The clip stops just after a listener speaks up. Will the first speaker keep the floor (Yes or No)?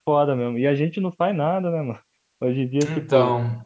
Yes